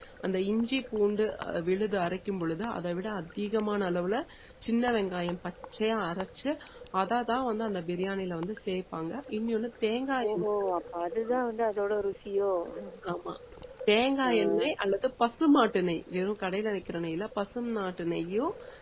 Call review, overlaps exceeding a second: none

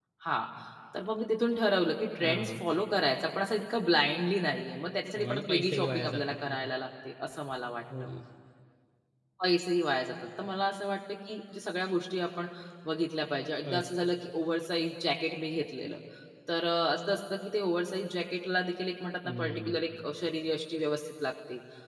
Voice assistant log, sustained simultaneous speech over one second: present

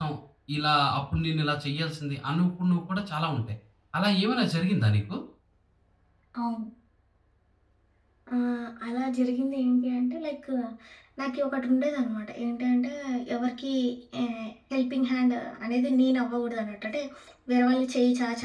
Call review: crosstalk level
none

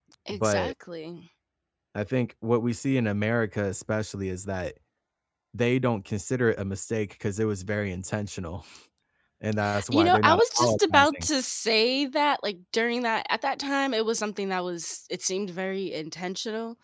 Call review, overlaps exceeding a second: present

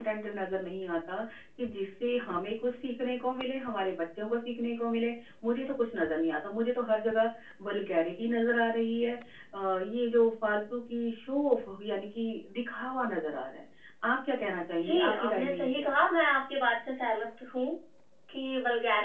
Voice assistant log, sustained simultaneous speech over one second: present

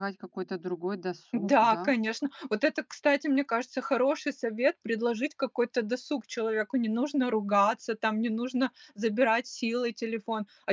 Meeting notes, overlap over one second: none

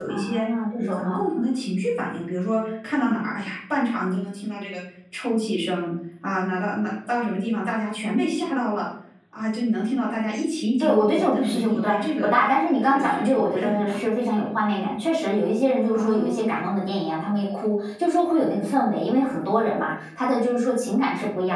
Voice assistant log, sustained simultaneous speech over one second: present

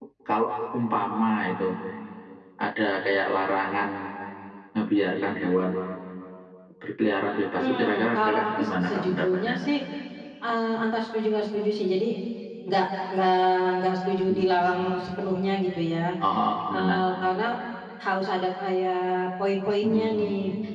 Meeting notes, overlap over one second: present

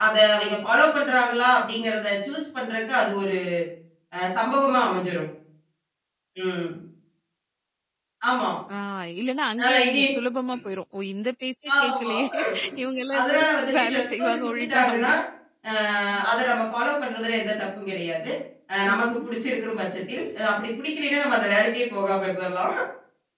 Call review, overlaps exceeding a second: present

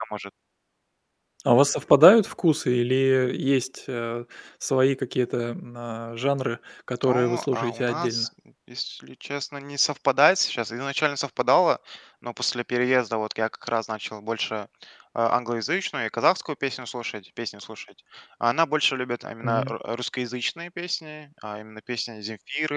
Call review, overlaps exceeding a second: present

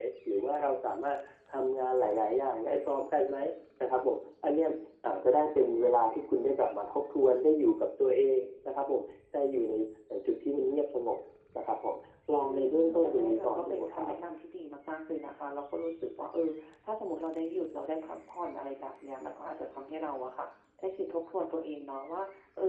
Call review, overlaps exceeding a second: present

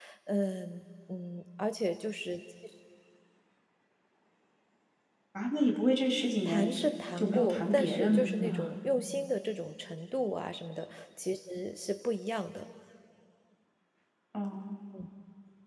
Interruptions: present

